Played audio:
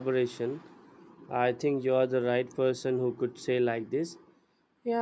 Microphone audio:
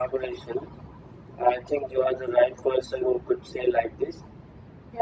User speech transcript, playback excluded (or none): none